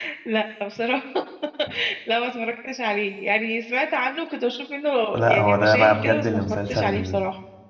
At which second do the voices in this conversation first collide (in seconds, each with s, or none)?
5.1 s